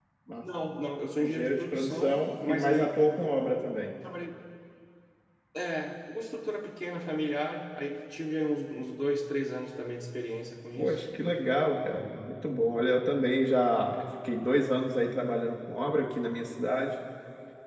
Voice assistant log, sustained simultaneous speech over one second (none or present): present